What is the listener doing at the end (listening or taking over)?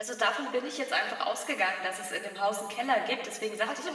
listening